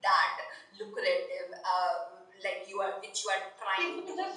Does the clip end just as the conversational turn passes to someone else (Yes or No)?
Yes